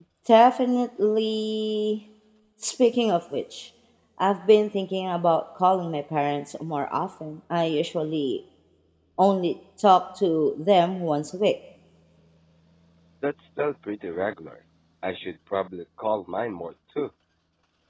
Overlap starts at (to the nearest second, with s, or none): none